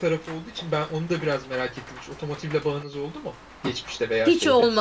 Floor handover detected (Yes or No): Yes